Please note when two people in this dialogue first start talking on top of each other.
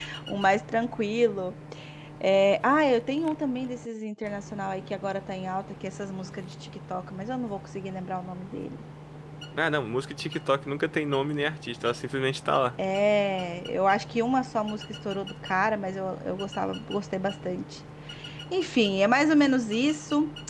none

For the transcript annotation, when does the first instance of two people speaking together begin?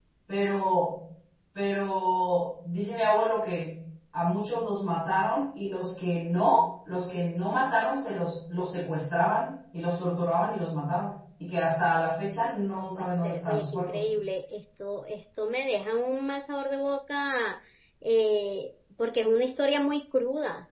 12.6 s

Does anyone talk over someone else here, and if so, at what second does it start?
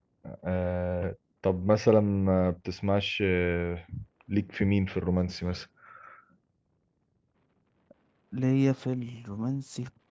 none

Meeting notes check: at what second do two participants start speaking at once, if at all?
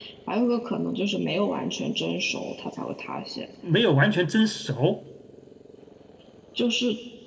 none

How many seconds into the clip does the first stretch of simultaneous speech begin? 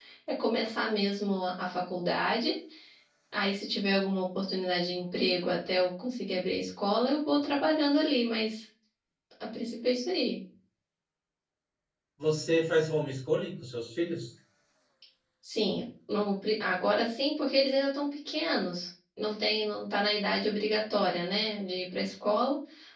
none

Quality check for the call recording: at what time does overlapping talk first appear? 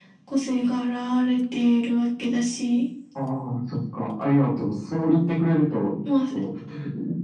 none

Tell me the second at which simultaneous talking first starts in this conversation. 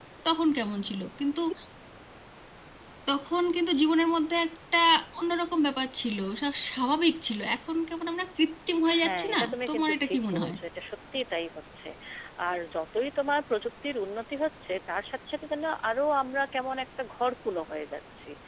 8.8 s

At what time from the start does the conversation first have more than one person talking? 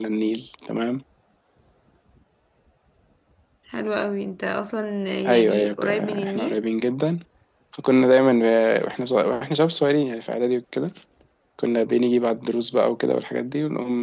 5.3 s

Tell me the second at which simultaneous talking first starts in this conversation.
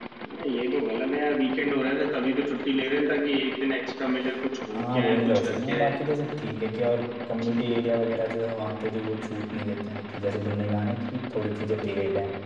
4.7 s

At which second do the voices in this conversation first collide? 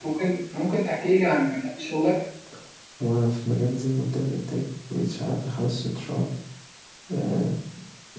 none

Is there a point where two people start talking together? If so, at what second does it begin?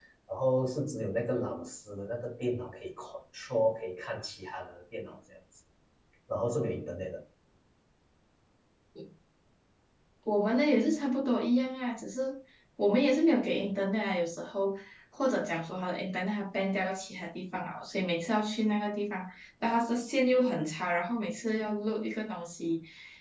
none

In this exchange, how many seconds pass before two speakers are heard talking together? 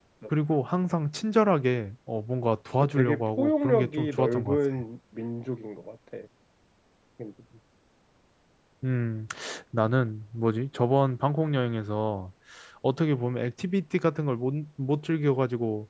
2.8 s

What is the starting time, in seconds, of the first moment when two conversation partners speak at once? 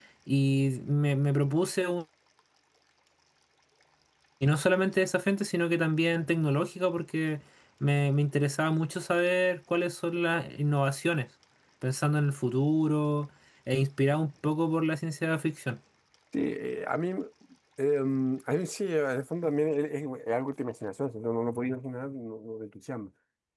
none

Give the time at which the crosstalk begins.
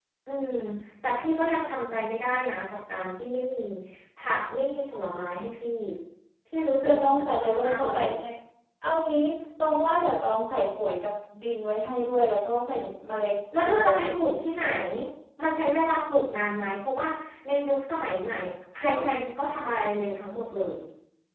6.8 s

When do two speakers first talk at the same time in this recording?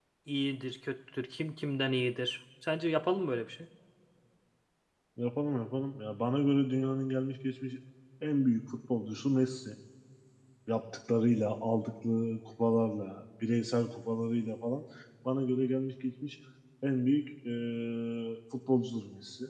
none

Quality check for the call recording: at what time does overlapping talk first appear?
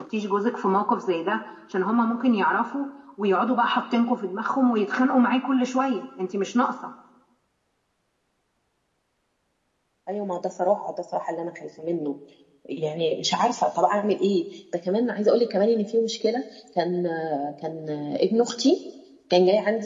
none

